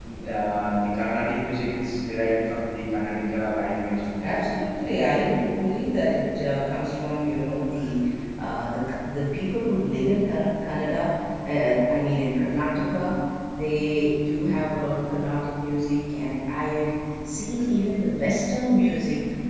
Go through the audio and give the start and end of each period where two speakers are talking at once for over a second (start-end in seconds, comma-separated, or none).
none